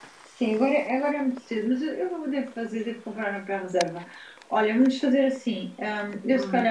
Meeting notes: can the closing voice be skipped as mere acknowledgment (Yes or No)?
Yes